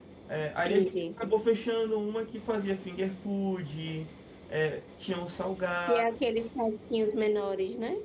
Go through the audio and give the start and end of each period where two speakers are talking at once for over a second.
none

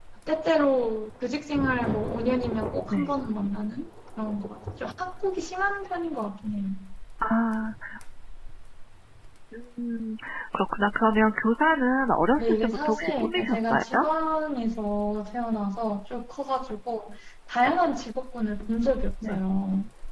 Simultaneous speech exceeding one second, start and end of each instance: 12.4-13.8

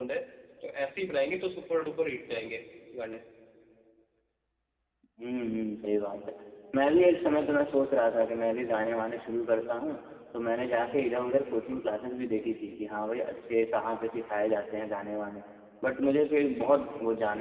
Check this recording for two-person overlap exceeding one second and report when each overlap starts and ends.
none

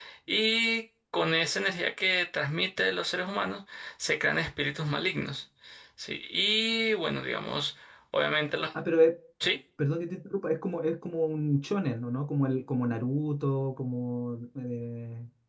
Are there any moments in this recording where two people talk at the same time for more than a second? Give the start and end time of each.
none

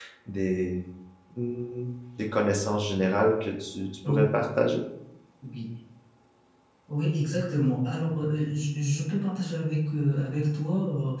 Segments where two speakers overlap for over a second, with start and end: none

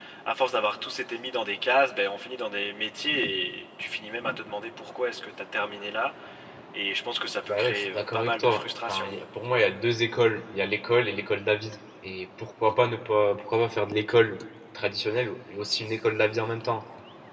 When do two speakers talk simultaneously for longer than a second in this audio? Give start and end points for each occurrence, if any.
7.5-9.1

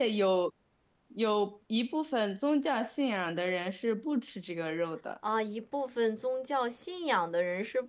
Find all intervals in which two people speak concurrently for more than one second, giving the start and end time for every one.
none

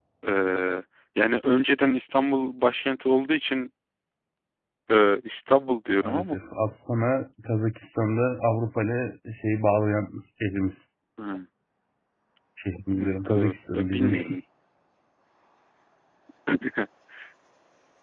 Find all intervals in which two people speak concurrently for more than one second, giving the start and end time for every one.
13.0-14.4

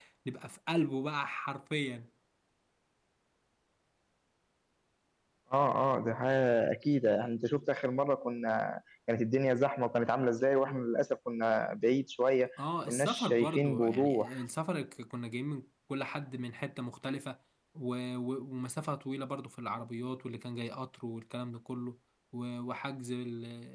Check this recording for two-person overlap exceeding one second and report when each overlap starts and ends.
12.9-14.3

